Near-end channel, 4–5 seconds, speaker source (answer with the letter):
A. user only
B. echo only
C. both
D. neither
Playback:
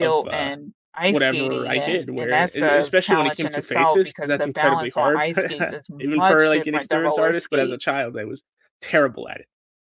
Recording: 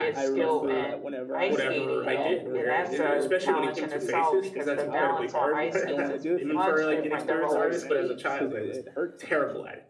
C